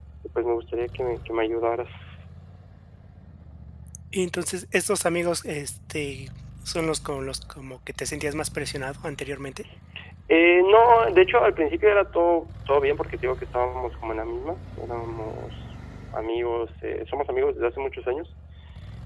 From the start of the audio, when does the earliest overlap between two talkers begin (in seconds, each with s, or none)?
none